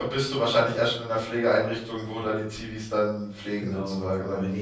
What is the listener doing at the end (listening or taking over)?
taking over